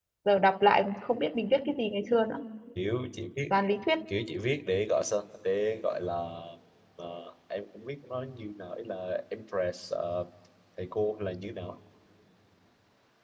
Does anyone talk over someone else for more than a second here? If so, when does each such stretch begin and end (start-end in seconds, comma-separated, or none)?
none